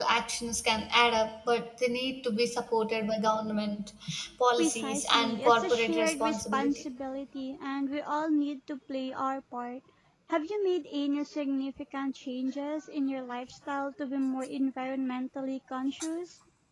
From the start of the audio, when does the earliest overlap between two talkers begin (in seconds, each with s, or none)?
4.6 s